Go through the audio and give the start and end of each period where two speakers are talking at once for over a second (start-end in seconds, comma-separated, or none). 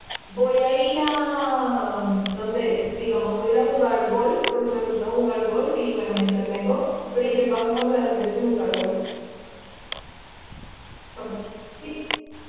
none